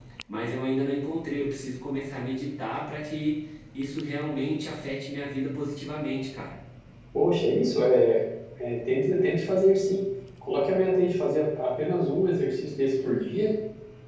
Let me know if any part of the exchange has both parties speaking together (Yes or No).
No